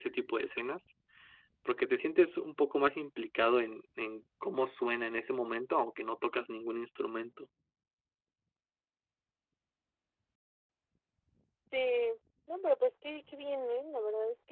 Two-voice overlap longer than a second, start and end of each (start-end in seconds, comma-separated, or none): none